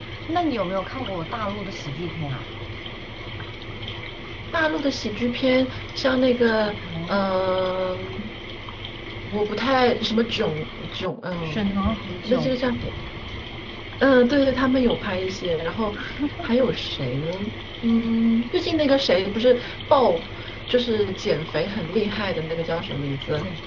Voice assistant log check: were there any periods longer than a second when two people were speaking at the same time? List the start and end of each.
none

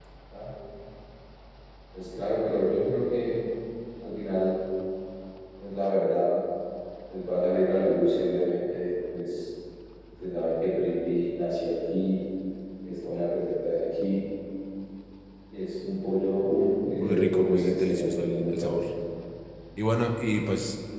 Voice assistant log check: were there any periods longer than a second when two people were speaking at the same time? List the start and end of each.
17.0-18.8

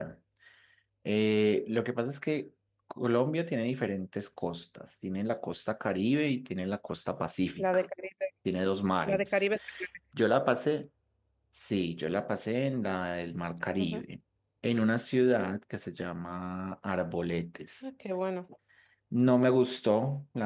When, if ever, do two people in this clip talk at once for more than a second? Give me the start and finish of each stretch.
none

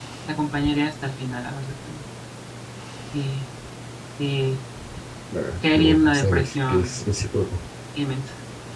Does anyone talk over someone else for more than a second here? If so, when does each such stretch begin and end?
5.7-7.0

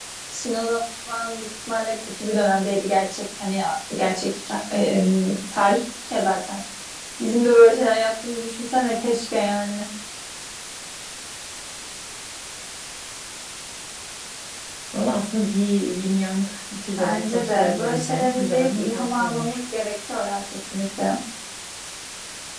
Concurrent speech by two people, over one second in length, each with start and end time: 17.0-19.6

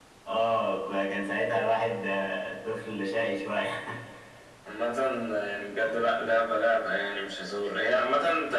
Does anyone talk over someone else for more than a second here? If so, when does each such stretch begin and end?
none

